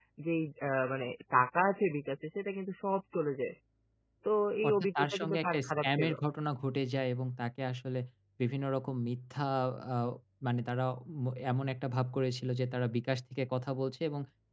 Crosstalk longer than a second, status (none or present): present